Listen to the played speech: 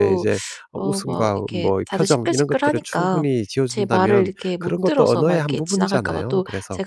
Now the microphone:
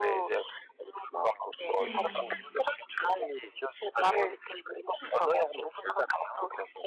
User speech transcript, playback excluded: 네.

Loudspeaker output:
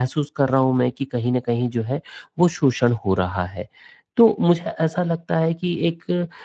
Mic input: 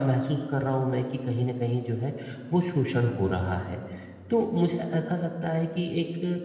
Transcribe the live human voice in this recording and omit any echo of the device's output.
none

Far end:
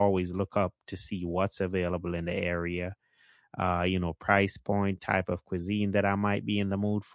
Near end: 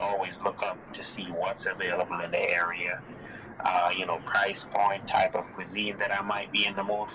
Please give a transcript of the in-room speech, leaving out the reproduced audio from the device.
none

